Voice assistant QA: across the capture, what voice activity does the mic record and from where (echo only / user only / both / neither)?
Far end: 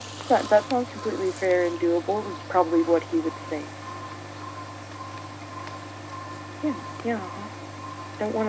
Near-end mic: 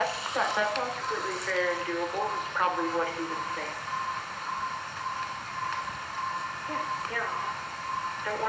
echo only